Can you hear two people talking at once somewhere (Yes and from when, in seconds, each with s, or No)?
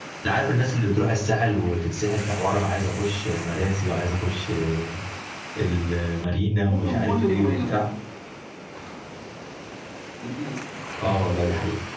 Yes, from 6.6 s